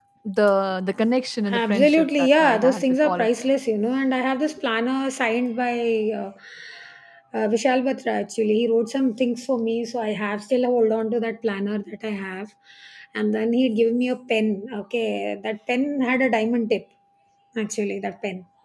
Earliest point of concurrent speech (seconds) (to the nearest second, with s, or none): 1 s